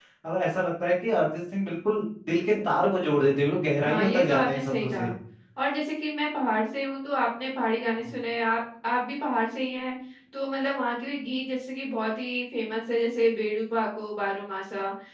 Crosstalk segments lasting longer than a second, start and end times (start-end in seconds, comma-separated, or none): 3.8-5.1